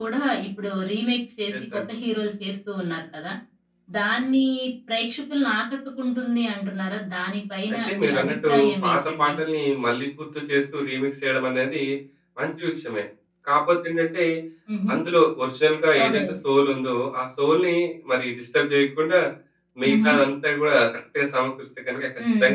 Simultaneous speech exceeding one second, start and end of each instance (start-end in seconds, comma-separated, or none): 7.7-9.3